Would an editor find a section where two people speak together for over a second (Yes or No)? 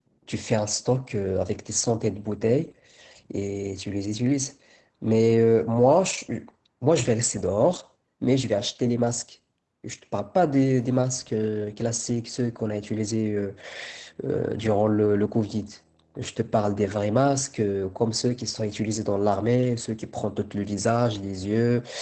No